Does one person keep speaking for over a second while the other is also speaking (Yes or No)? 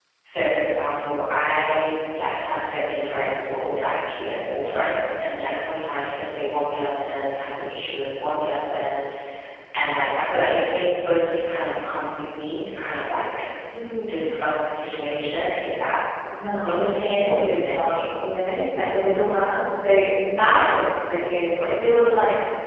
Yes